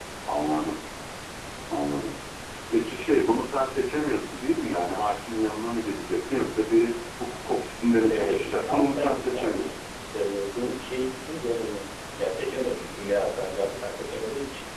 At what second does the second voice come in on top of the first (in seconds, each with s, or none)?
8.1 s